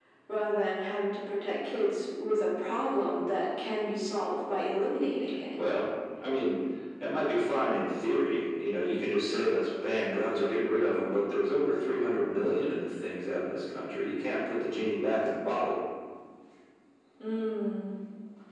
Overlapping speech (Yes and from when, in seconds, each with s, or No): No